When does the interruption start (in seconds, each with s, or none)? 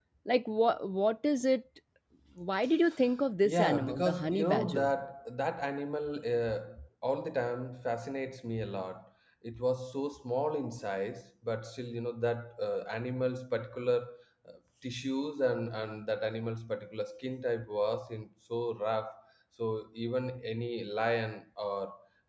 3.4 s